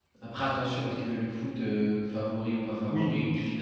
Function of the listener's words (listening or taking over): taking over